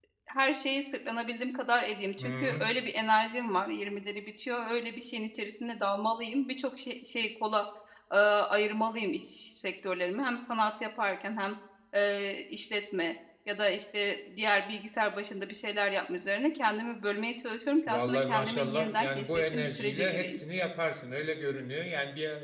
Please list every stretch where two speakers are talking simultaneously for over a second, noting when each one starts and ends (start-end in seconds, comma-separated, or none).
17.9-20.4